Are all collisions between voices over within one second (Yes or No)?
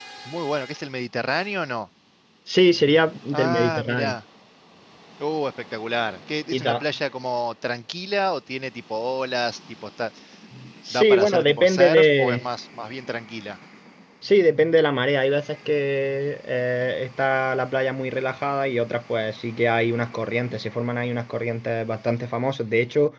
No